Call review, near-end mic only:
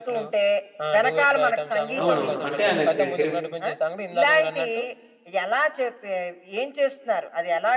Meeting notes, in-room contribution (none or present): present